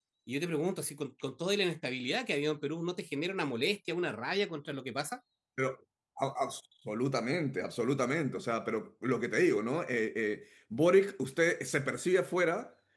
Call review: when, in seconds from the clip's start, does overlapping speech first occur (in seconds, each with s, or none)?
none